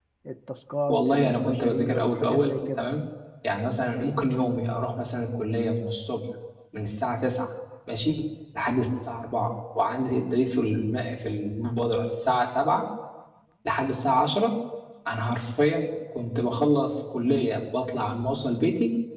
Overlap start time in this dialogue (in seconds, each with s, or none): 0.9 s